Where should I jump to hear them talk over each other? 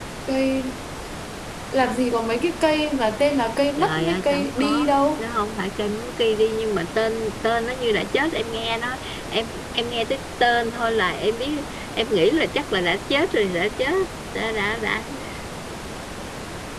3.8 s

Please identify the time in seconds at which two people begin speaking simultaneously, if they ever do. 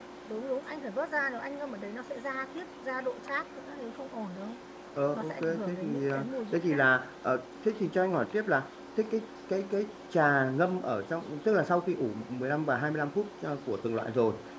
5.1 s

